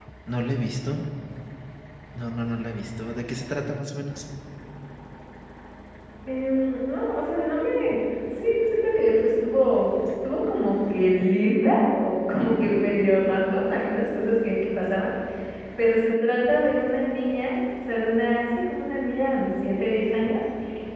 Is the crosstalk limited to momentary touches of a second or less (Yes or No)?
Yes